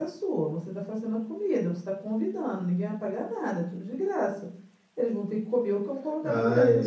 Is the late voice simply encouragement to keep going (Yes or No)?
No